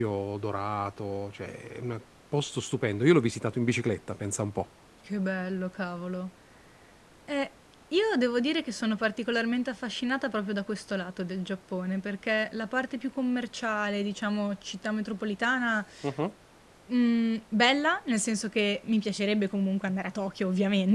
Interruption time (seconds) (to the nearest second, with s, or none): none